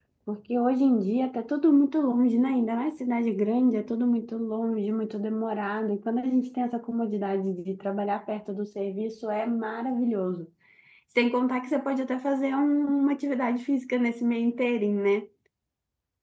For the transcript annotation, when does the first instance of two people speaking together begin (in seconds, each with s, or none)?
none